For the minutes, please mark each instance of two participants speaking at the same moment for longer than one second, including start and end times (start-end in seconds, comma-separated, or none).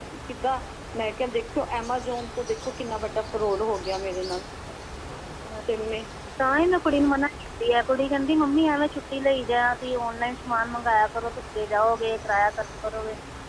none